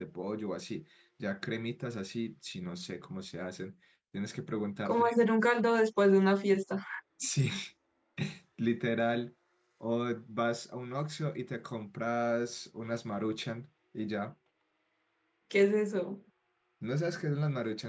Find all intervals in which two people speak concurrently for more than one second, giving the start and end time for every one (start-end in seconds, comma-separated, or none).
none